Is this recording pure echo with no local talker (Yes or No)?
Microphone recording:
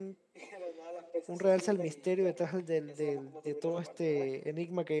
No